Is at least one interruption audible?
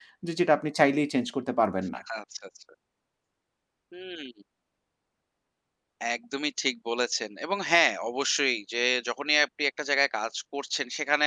No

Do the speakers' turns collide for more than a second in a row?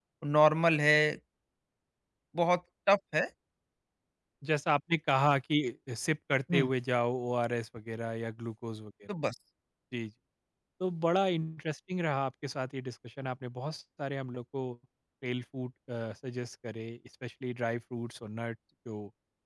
No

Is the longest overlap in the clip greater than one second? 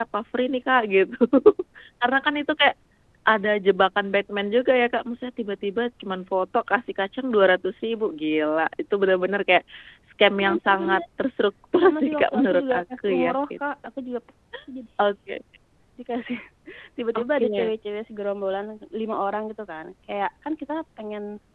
Yes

